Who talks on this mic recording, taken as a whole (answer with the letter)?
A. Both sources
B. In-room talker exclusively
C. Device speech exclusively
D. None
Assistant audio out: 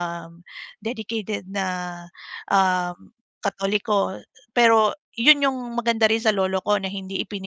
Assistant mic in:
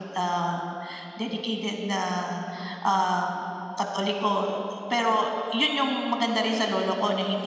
C